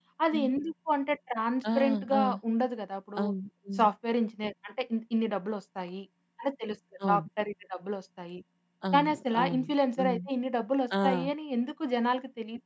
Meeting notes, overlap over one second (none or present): present